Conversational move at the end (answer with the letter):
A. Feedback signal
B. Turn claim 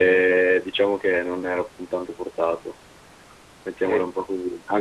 A